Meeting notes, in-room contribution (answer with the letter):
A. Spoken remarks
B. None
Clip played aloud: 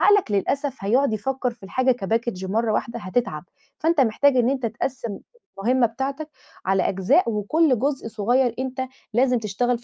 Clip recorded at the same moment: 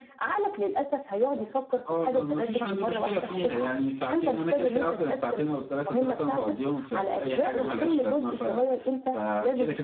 A